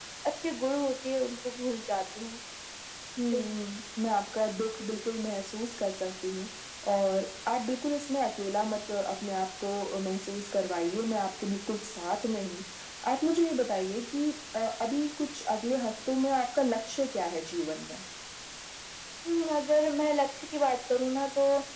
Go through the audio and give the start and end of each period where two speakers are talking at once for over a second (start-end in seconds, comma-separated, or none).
none